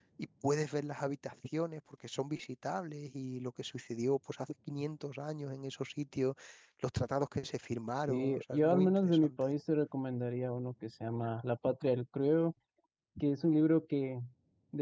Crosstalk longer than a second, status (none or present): present